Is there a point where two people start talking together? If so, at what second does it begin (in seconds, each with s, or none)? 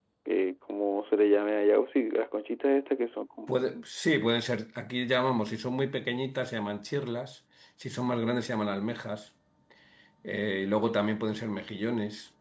none